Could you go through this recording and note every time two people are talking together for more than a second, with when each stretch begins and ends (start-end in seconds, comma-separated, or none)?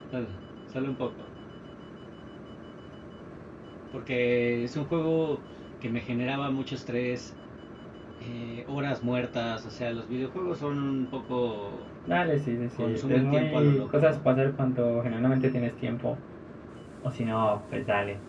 12.8-14.2